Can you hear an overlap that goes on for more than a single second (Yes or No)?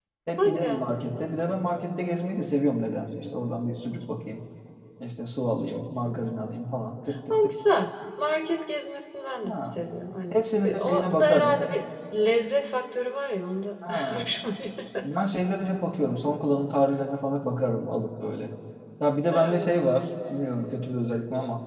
Yes